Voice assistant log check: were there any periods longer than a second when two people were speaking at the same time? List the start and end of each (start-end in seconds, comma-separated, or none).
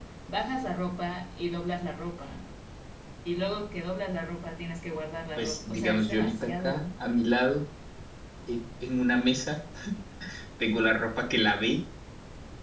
5.4-6.8